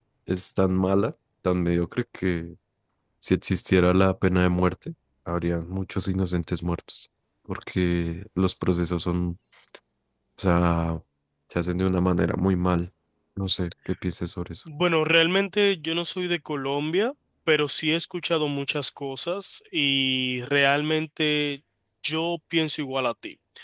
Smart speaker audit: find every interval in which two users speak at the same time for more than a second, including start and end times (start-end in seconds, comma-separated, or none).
none